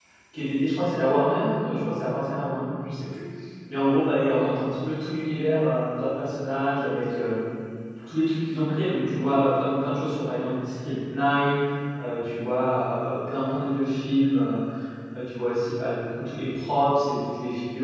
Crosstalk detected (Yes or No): No